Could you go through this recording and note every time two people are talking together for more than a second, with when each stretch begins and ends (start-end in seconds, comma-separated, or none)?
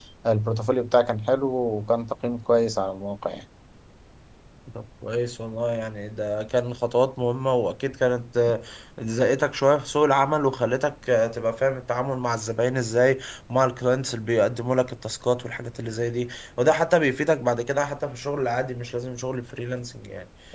none